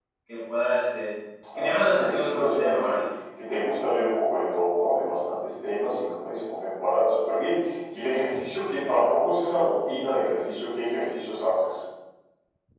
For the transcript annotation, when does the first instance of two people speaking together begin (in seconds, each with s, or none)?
1.6 s